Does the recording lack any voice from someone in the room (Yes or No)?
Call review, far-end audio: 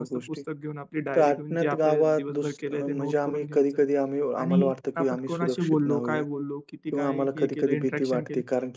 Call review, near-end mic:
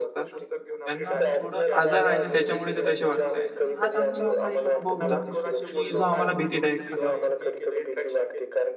No